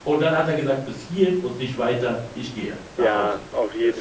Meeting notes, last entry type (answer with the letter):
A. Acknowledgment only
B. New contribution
B